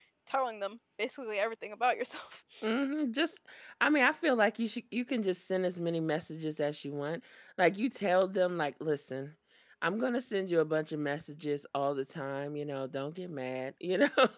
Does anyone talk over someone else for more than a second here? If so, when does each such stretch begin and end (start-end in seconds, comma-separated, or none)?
none